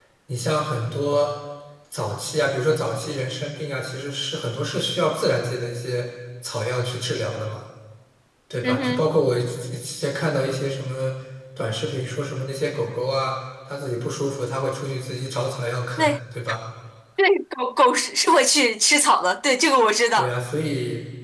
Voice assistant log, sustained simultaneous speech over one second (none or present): none